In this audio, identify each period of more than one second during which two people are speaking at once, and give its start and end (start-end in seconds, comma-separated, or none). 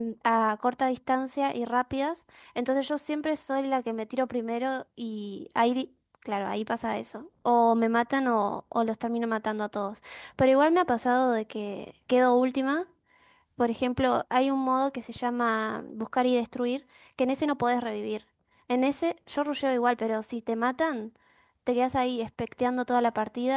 none